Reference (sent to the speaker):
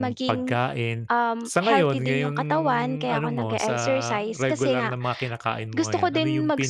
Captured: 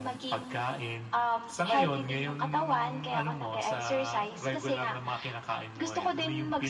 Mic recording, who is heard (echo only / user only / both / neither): echo only